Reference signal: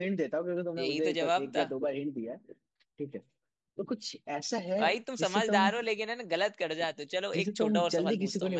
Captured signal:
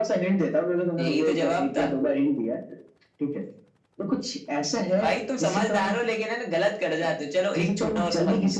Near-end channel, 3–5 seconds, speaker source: echo only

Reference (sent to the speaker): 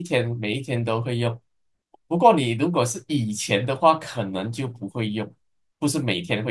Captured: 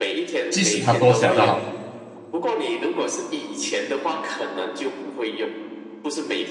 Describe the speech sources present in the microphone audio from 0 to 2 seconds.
both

